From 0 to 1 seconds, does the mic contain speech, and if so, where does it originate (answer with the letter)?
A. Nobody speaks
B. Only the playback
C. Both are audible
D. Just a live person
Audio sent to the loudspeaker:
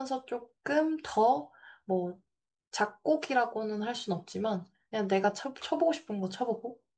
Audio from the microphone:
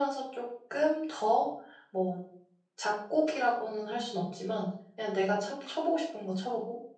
B